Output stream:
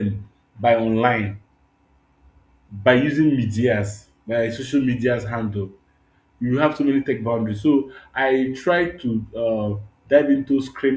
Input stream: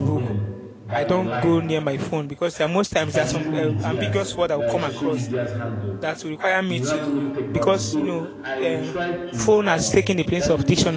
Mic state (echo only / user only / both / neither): both